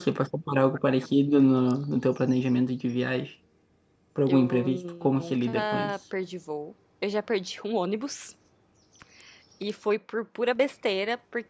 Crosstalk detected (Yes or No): Yes